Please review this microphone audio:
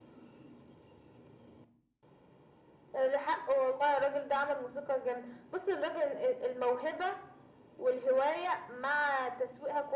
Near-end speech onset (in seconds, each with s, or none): none